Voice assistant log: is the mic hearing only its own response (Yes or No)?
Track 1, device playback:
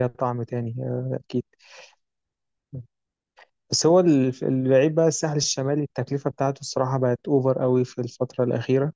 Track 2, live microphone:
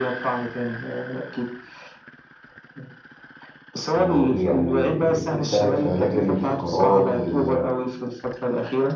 No